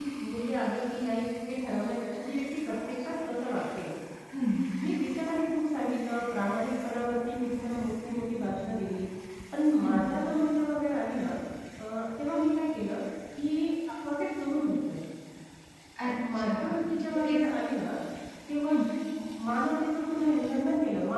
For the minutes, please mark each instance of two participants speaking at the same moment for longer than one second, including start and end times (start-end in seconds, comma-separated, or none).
16.0-17.3